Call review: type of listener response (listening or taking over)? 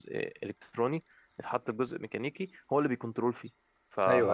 taking over